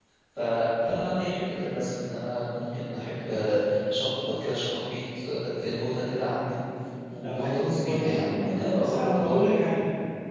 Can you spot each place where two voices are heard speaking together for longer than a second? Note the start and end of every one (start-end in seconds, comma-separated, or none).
7.2-9.4